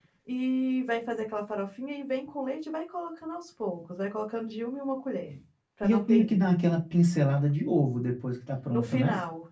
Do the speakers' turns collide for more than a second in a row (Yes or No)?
No